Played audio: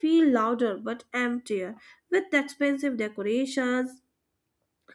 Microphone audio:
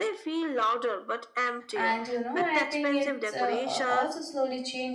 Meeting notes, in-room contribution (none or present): present